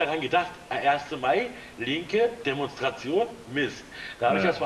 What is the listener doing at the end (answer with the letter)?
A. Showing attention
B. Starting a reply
A